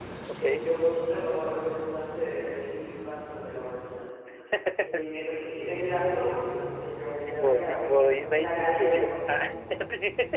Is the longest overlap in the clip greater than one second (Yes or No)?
Yes